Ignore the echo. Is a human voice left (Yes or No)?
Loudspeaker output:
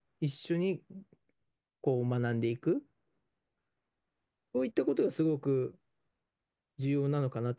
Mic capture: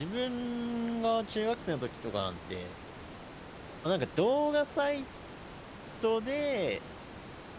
Yes